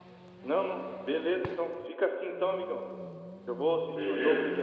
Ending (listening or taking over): listening